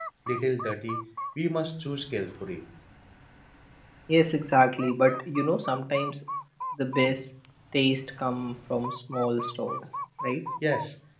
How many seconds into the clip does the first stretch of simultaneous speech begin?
none

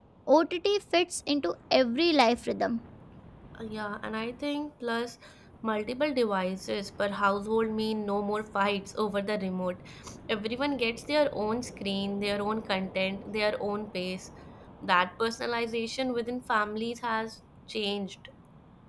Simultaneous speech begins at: none

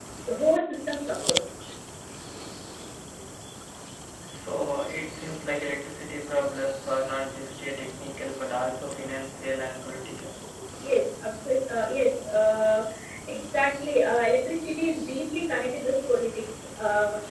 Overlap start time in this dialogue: none

